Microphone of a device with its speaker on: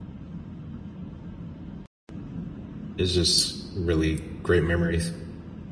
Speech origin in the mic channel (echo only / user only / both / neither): user only